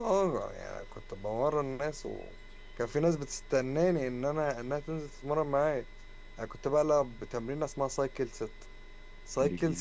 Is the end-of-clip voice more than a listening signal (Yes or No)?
No